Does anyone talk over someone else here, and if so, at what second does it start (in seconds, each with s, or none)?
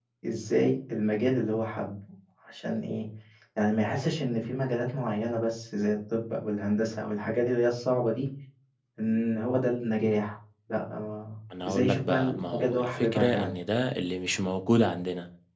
11.5 s